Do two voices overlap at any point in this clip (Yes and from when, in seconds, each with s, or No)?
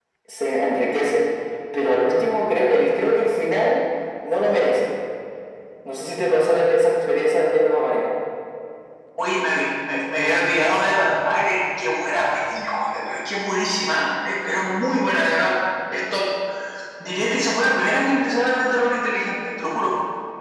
No